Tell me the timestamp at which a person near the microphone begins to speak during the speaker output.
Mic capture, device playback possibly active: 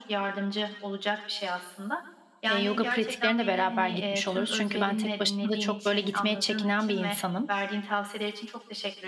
2.5 s

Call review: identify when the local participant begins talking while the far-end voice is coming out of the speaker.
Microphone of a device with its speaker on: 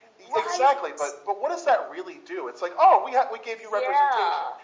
none

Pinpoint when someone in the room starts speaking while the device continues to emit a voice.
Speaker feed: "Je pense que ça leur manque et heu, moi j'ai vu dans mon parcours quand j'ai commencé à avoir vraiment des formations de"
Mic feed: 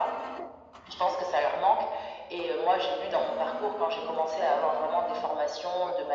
none

